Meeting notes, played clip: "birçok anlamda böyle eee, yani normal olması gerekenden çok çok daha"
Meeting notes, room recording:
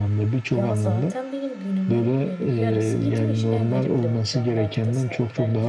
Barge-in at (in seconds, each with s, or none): 0.5 s